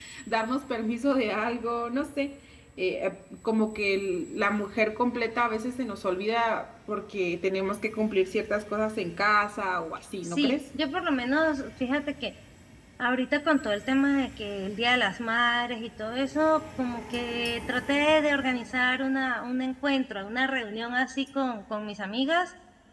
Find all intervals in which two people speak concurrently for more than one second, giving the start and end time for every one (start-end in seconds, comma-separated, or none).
none